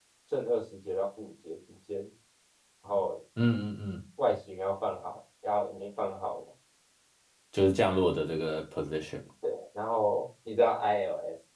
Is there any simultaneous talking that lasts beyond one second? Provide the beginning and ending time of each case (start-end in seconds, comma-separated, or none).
none